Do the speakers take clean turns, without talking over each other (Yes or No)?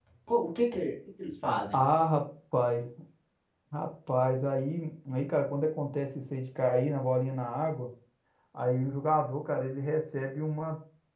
Yes